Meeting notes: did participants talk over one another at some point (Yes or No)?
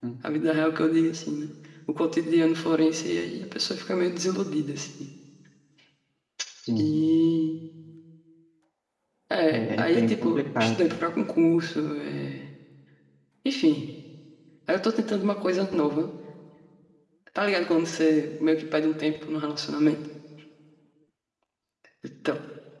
Yes